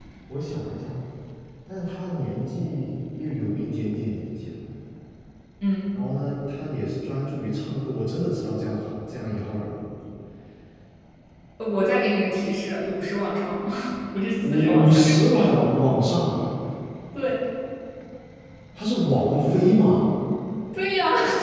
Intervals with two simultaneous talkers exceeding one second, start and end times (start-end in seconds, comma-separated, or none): 14.4-15.7